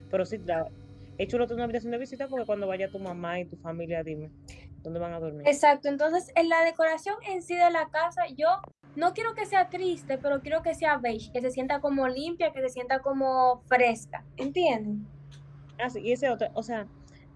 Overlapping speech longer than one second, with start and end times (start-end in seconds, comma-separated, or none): none